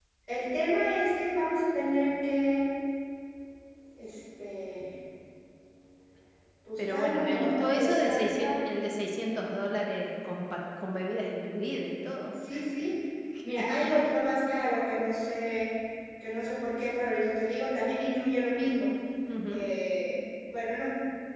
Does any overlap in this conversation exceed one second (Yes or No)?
Yes